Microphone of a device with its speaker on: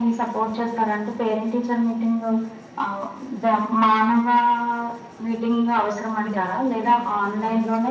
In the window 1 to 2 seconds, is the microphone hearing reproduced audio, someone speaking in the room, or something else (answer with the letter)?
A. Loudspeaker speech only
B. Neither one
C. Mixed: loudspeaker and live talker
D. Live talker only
A